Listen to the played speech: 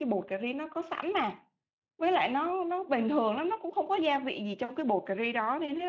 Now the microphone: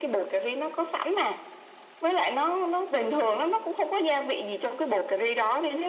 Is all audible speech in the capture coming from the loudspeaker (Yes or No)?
Yes